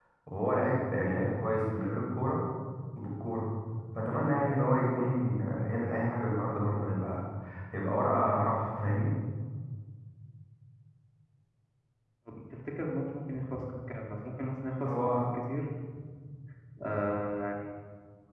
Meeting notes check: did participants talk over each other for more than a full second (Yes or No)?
No